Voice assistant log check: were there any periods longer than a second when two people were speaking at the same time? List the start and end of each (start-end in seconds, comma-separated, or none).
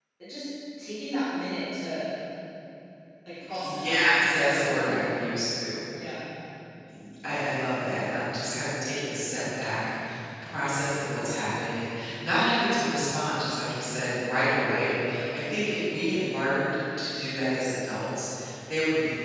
3.6-4.9